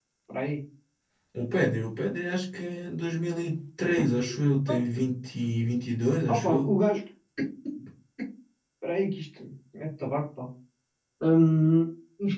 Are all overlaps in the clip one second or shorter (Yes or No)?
Yes